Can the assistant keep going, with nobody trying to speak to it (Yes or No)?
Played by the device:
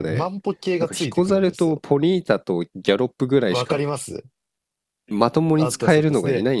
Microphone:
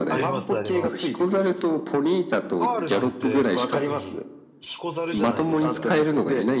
No